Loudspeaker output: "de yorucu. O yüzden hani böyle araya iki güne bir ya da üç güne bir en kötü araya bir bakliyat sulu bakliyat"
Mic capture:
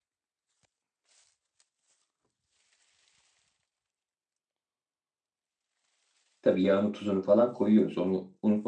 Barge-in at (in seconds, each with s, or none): 6.4 s